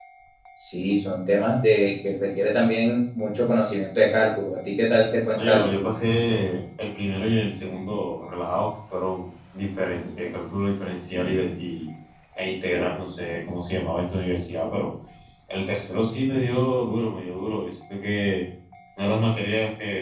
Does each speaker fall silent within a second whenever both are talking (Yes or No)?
Yes